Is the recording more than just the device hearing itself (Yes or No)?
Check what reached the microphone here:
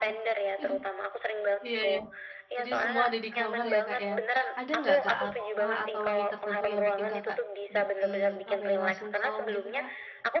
Yes